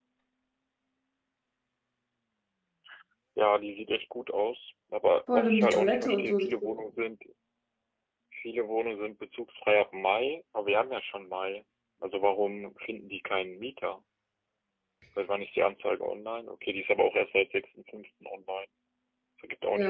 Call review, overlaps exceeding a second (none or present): present